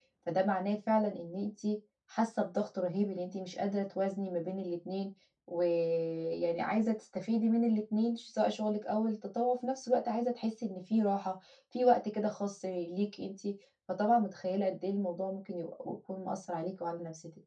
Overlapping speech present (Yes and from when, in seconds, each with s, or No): No